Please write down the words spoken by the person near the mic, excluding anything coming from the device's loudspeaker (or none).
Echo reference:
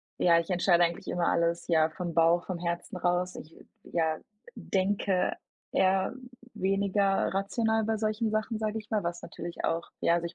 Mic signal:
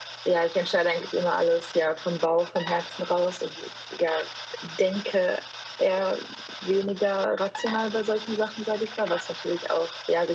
none